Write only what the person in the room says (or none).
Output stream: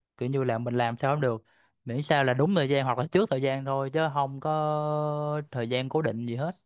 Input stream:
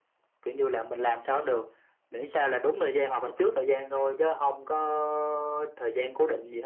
none